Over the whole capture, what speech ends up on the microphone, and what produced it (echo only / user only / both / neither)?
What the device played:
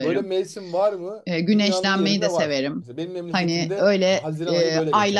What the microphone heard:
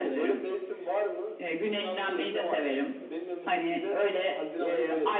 echo only